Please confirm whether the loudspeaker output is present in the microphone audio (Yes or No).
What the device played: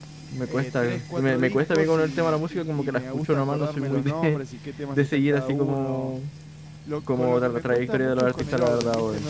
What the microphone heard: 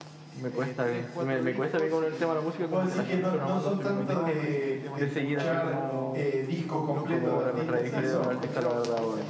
Yes